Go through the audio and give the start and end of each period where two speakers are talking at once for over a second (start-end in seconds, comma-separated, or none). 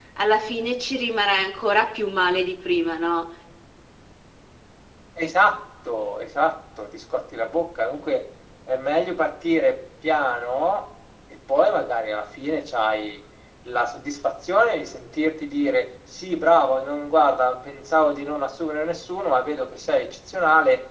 none